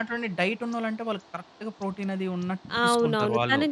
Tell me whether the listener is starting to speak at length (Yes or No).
Yes